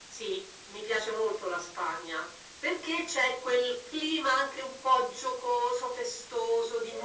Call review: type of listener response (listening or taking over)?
listening